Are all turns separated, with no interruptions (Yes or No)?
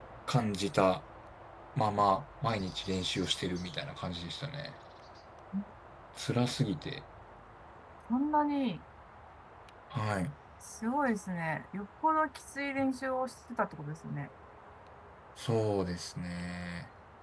Yes